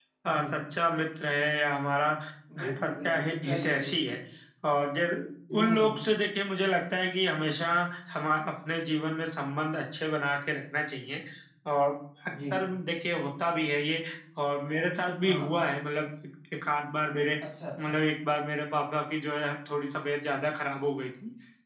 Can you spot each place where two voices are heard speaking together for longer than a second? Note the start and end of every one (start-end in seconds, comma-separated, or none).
2.7-3.9